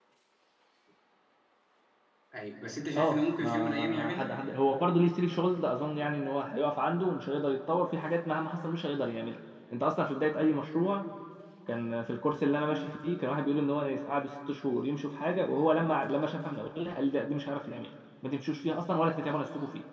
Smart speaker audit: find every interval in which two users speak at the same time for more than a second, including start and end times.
2.9-4.3

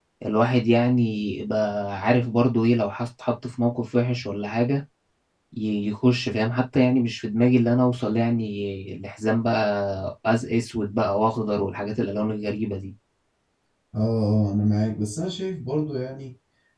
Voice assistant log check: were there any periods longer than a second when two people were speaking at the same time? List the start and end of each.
none

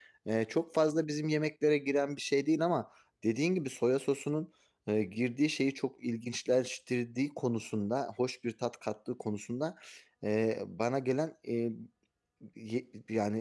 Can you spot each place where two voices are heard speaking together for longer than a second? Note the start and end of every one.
none

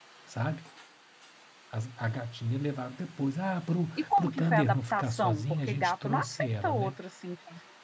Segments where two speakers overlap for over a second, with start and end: 4.0-6.9

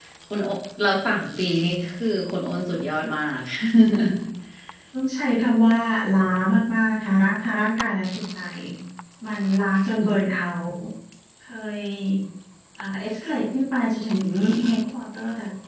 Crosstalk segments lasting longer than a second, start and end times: none

